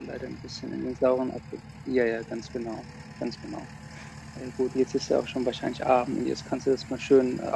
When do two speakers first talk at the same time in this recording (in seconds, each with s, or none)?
none